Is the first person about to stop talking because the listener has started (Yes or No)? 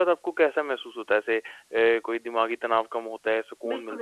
Yes